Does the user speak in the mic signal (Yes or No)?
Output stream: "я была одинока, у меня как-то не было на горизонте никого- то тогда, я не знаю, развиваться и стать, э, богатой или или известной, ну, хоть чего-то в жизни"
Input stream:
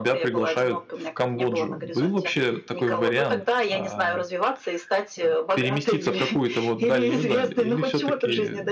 Yes